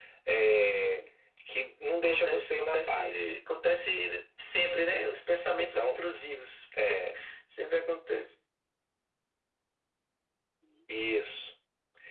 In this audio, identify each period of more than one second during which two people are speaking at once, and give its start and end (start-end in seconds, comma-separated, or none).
2.0-3.4